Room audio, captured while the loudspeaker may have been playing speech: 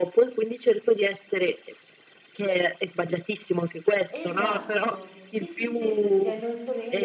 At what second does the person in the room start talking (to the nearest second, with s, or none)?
4 s